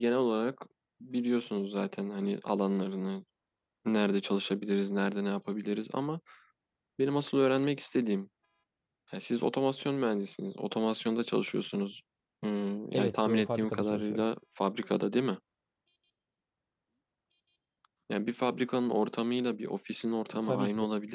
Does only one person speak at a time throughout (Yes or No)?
No